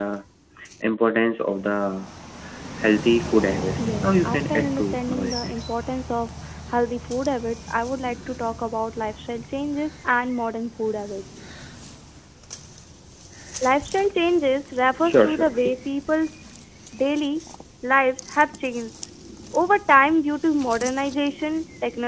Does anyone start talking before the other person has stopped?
Yes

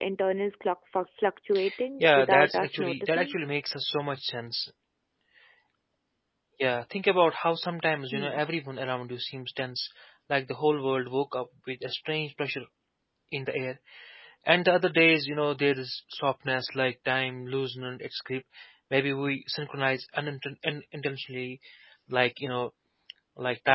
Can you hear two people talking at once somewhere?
Yes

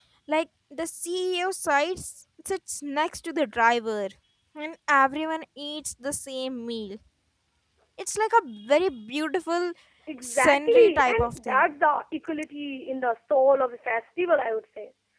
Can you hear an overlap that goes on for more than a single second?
Yes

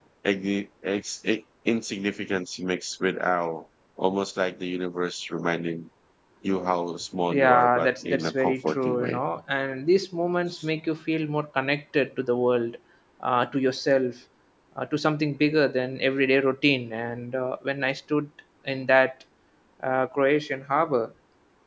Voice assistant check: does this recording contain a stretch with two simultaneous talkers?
Yes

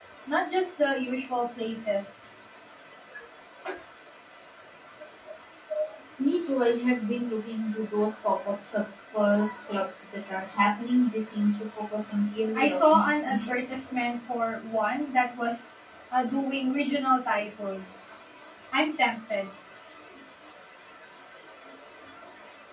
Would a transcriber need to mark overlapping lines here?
Yes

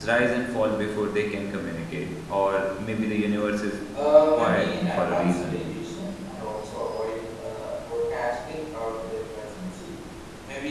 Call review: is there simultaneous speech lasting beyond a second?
Yes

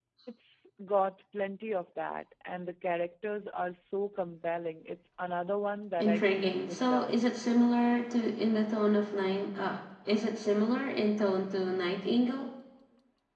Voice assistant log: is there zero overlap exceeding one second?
No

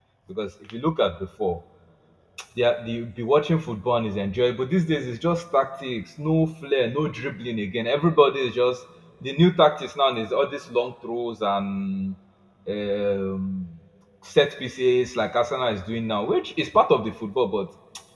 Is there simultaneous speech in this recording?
No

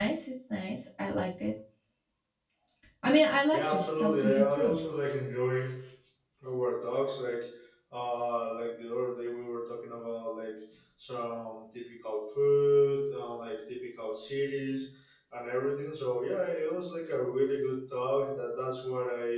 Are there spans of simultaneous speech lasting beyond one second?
Yes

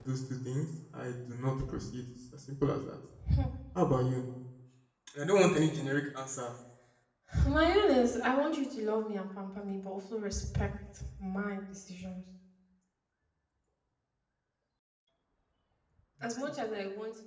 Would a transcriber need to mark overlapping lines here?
No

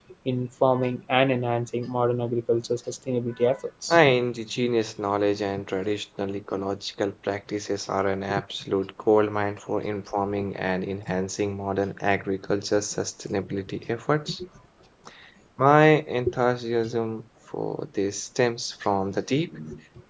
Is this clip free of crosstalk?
Yes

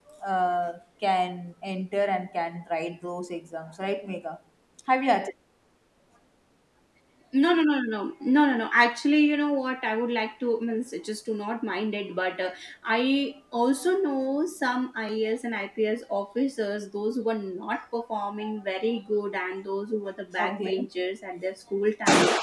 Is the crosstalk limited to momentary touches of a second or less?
Yes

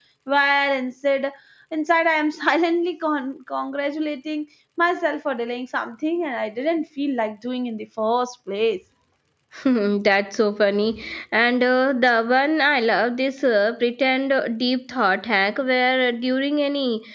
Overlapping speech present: No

